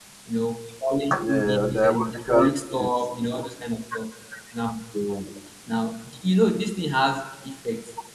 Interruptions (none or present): present